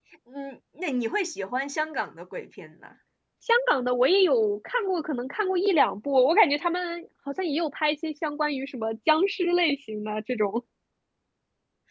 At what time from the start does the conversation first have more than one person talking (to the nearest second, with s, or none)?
none